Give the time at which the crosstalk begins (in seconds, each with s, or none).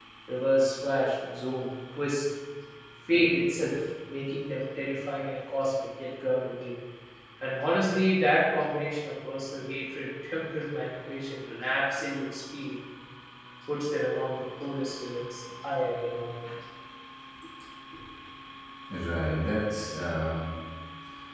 none